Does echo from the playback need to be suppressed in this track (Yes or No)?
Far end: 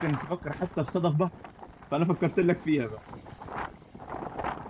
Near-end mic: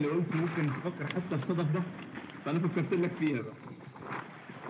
Yes